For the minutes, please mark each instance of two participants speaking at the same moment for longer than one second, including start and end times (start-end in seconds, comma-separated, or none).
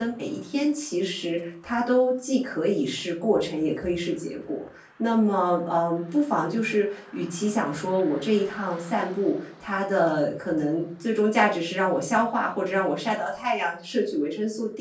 none